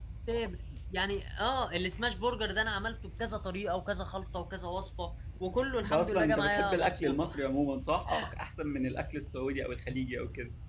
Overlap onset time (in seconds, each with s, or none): 5.8 s